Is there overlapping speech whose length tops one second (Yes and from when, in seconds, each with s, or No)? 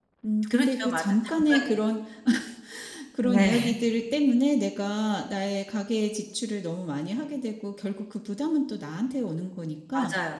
Yes, from 0.5 s